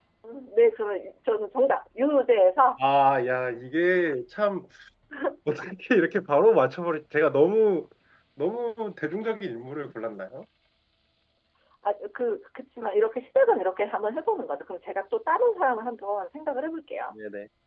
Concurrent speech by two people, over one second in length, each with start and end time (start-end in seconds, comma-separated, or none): none